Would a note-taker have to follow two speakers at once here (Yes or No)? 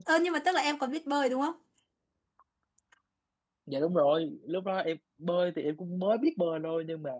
No